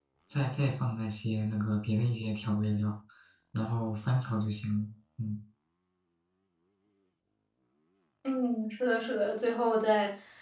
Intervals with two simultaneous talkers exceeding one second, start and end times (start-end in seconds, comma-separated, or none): none